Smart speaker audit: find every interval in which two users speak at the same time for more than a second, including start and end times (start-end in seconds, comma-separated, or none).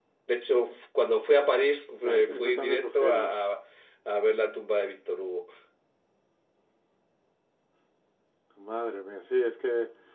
2.0-3.3